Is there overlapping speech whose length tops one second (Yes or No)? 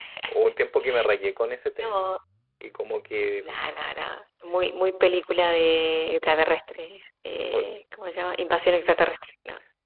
No